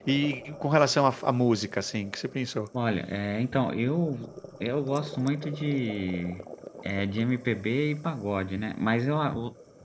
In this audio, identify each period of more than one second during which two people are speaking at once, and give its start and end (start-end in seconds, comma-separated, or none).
none